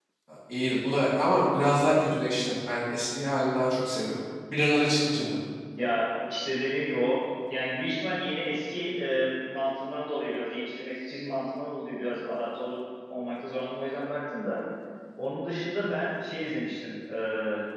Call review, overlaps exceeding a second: none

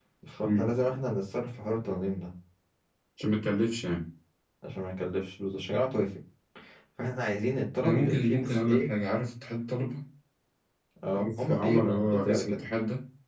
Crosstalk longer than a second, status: present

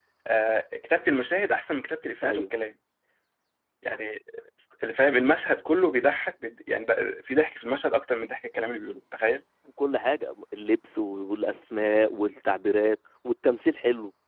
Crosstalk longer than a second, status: none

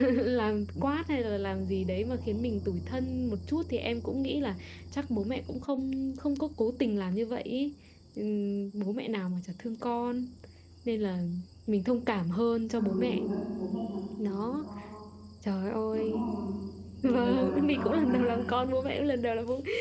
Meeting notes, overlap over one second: present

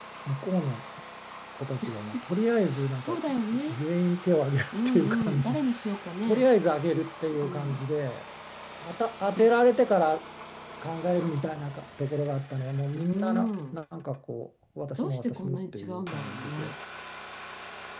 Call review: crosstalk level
present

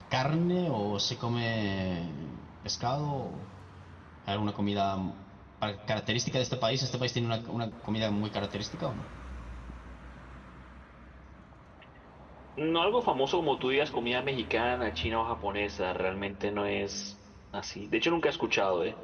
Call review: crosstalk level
none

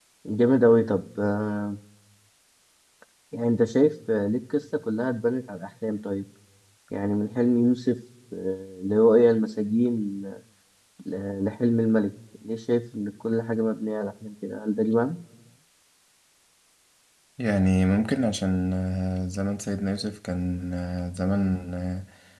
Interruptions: none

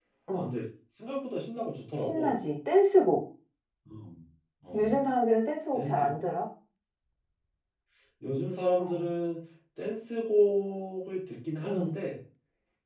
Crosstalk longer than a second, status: none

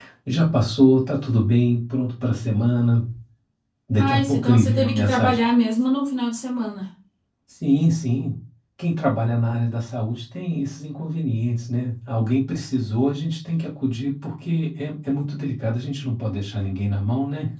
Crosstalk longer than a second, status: present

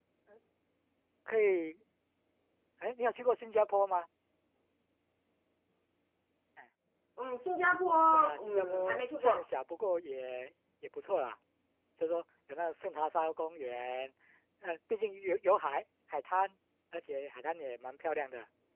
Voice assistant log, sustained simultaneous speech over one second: present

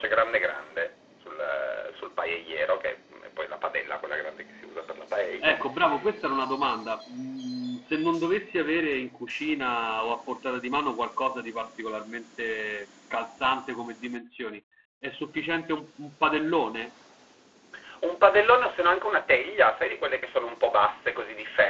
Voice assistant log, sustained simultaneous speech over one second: none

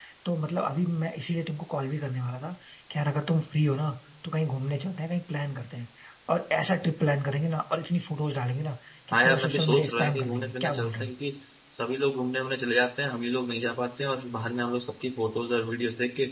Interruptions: present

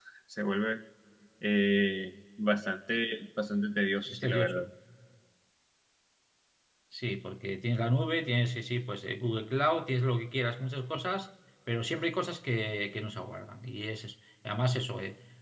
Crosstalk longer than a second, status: none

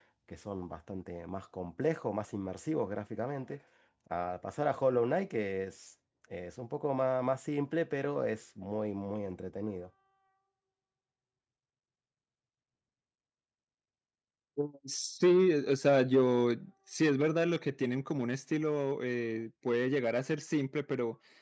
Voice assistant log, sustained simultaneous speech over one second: none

